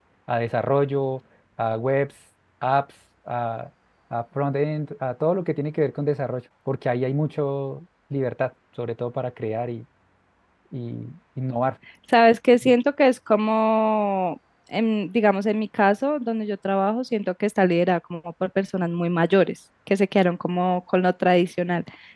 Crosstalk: none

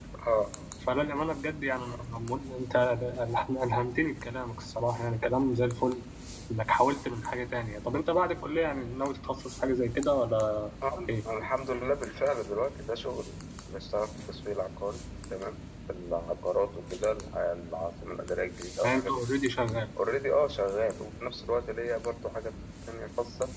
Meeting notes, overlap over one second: none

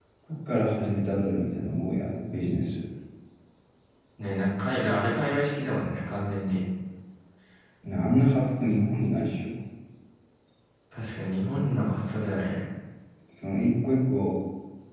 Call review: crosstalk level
none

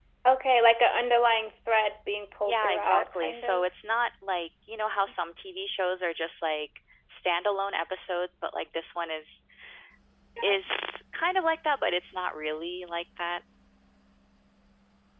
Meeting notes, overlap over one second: present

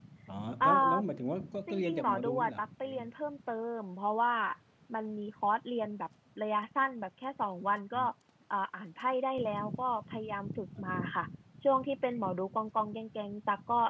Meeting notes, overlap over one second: present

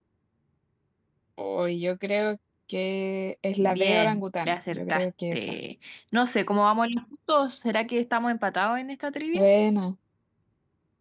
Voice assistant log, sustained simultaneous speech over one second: present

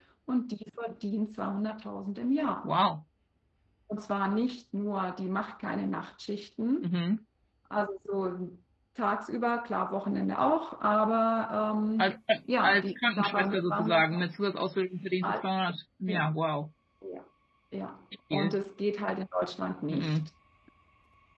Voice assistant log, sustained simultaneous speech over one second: present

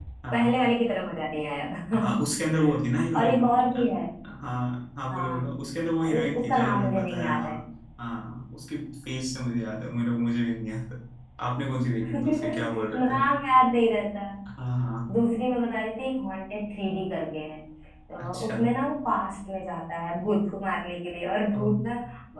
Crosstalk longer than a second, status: present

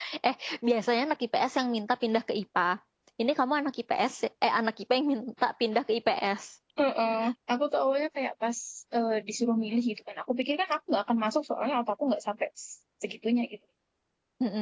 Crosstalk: none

